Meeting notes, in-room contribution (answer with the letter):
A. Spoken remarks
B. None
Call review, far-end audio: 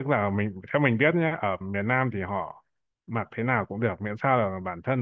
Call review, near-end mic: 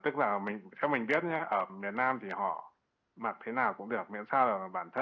B